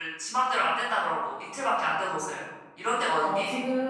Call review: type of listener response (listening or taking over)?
taking over